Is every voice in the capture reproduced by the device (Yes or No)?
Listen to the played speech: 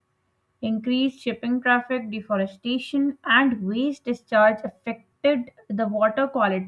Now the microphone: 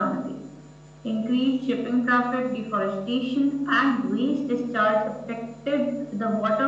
Yes